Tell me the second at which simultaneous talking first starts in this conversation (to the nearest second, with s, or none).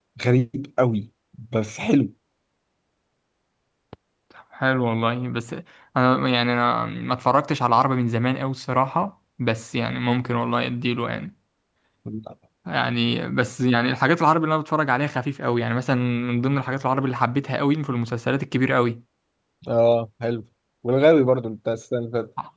none